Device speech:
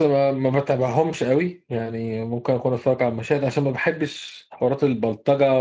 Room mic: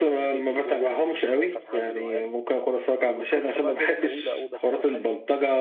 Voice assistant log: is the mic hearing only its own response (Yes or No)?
No